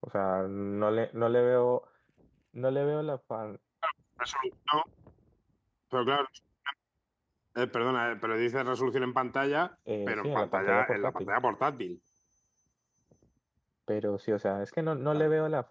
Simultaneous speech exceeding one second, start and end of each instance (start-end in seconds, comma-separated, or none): 10.1-11.3